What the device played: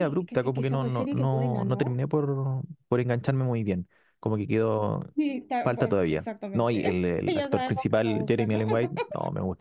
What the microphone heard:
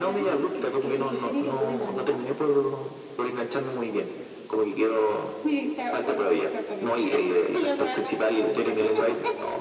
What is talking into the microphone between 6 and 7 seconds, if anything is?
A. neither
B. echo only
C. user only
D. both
B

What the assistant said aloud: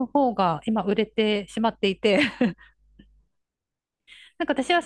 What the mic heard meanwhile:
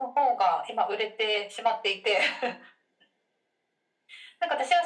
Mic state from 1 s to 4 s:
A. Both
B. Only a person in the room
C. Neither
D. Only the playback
D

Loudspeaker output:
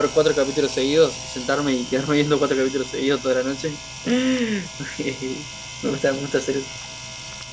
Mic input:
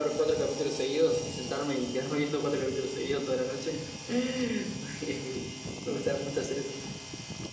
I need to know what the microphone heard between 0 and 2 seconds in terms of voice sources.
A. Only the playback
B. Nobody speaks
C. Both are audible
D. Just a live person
A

